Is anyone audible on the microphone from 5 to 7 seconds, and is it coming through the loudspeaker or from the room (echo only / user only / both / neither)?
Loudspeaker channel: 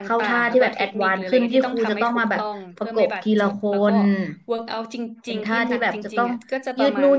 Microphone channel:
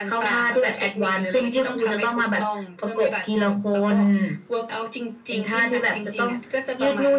echo only